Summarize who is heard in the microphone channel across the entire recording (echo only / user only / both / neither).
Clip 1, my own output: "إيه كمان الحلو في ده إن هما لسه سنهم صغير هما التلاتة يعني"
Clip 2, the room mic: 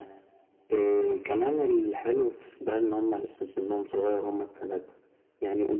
echo only